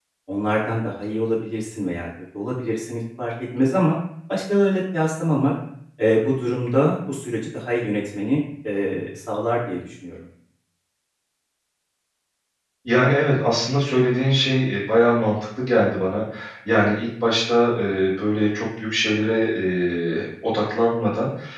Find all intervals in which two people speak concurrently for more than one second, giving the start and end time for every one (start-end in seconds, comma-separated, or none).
none